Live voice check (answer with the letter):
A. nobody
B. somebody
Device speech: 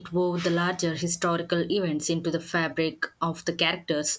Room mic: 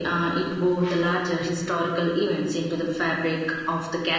A